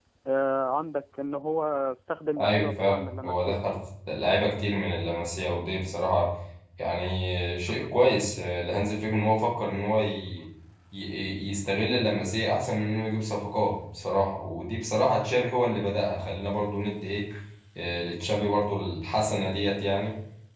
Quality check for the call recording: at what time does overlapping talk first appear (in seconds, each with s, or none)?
2.4 s